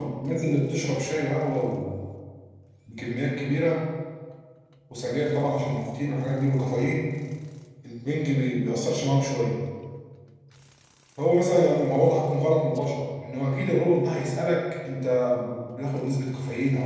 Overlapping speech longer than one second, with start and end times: none

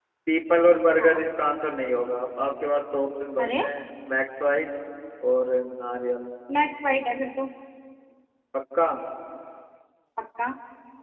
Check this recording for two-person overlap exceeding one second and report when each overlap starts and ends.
none

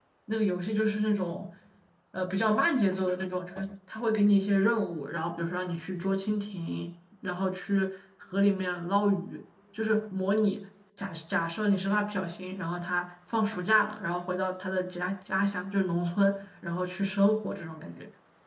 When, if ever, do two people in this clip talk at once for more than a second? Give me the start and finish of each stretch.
none

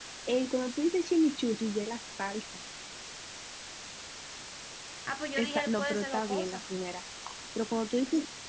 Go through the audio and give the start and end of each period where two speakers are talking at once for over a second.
5.4-6.6

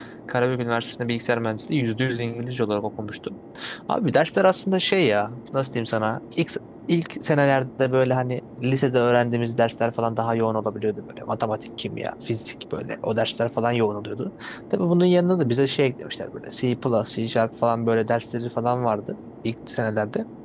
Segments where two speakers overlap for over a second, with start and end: none

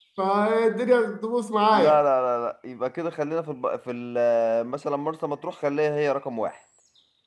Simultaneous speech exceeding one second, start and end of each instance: none

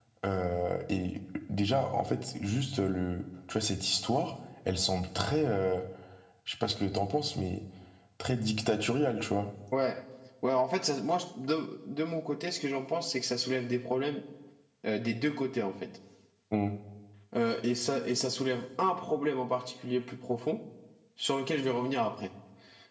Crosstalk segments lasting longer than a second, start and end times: none

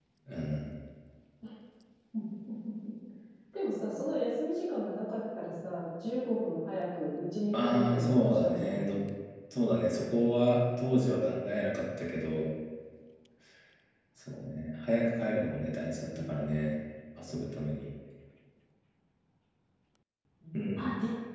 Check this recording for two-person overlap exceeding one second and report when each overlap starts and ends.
7.5-8.9

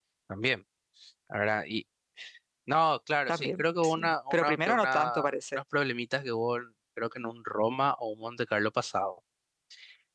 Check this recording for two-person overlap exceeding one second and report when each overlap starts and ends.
3.3-5.6

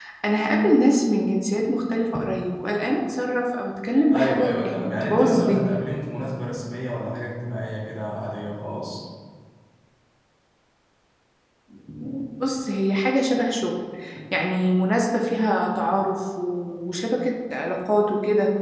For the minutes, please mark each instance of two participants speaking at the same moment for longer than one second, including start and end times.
4.1-5.8

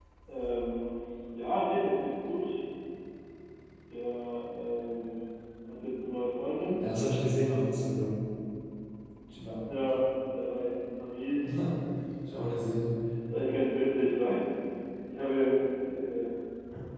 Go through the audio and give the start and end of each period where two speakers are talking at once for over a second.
none

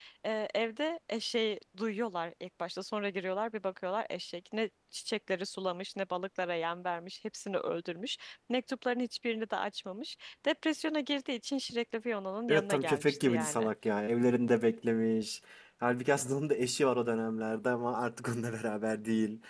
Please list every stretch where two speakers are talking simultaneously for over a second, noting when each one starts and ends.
12.5-13.7

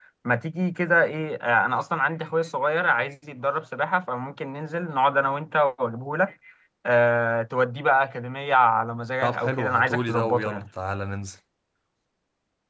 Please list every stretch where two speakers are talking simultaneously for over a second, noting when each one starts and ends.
9.2-10.7

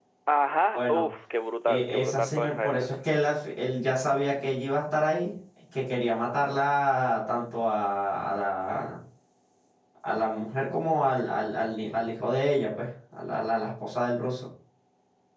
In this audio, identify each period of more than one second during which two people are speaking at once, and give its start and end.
1.7-2.9

